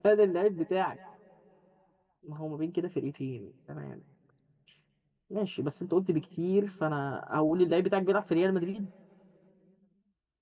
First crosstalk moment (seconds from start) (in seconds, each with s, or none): none